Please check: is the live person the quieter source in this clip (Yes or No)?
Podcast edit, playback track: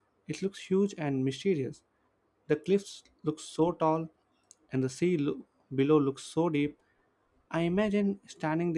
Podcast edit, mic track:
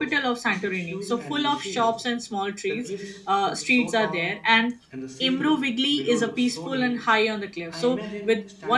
No